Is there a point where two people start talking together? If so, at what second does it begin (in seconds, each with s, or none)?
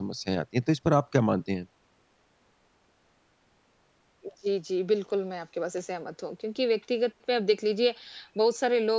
none